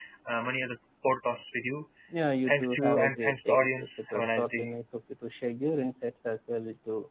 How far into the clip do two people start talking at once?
2.5 s

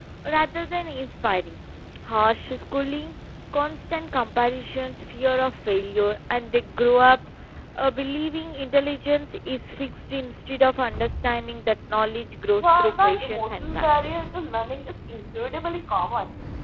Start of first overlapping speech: 12.6 s

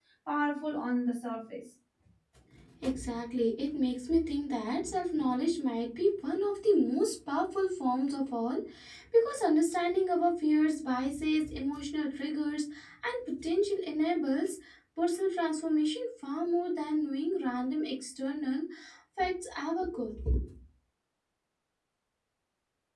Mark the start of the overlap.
none

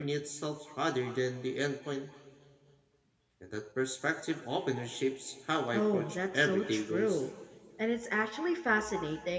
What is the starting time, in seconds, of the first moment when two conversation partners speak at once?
5.7 s

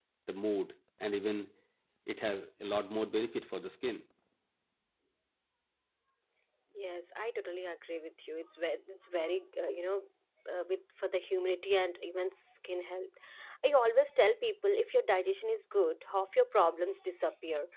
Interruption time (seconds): none

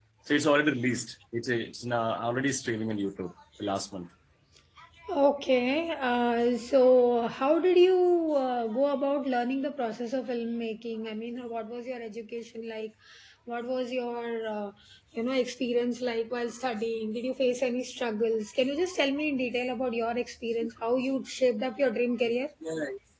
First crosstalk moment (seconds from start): none

